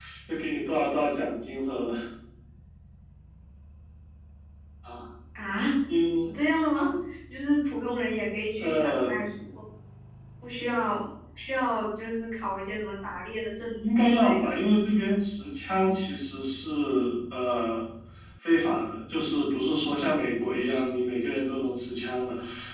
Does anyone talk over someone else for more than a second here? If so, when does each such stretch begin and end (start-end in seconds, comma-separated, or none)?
none